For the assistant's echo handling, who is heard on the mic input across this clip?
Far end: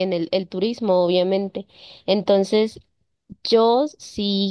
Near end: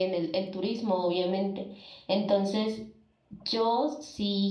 echo only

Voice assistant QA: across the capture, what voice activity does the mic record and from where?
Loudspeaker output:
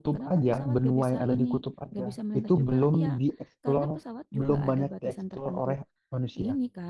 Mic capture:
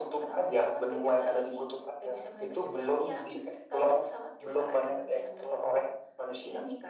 echo only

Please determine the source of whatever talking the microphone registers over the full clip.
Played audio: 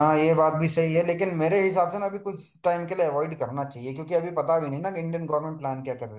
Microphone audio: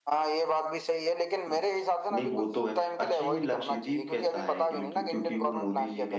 both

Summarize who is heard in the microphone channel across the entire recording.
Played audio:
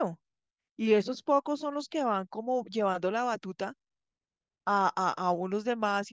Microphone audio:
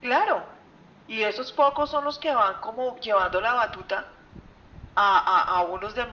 echo only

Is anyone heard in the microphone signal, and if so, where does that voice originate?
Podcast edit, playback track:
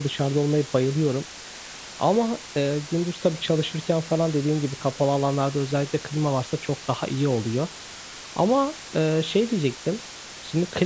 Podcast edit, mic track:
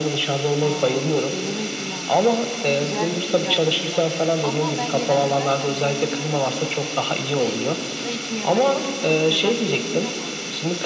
both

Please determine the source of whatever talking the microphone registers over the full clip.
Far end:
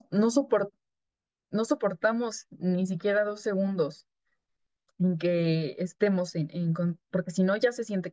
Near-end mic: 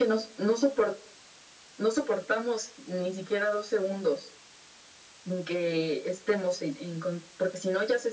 echo only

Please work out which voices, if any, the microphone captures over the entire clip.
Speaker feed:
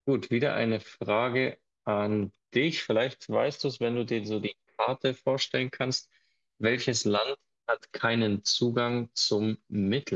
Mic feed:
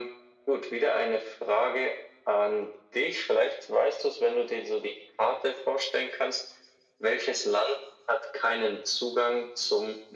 echo only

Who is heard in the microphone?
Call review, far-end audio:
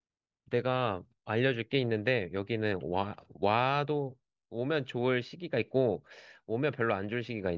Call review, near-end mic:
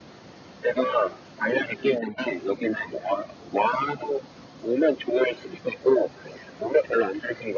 echo only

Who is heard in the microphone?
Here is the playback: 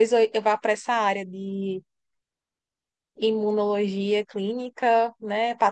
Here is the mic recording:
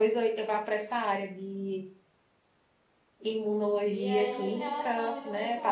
both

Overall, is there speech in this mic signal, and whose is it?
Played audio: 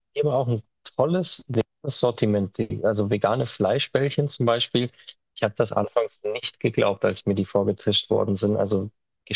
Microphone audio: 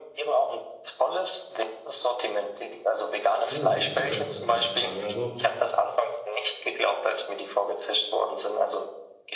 both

